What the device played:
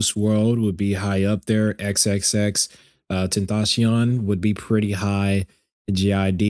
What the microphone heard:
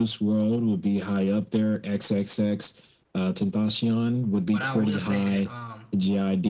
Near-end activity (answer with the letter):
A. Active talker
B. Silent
A